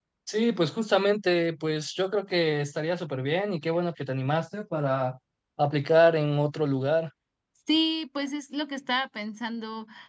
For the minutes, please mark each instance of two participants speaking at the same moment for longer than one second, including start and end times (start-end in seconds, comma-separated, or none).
none